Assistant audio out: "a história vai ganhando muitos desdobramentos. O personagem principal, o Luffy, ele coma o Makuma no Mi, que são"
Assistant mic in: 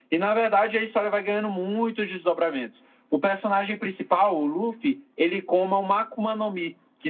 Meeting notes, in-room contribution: none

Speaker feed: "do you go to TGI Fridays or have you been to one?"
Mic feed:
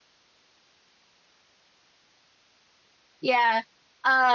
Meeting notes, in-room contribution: present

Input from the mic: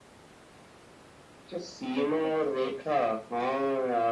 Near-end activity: present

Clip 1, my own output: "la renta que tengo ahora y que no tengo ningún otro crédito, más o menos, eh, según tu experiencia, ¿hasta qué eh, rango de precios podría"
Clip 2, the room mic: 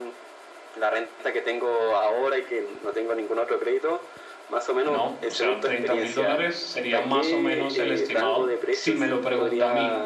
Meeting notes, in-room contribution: present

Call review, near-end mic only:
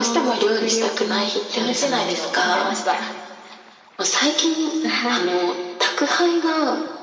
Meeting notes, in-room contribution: none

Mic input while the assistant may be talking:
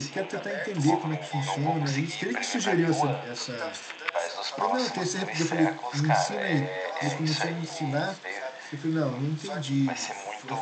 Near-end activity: present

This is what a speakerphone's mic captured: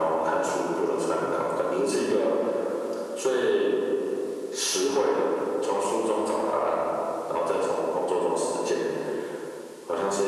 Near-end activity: none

